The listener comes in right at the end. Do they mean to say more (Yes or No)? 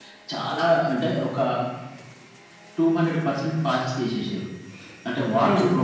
No